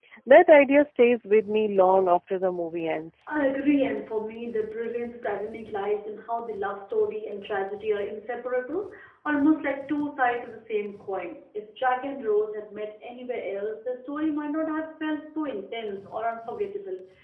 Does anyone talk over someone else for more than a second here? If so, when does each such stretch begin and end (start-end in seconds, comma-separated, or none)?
none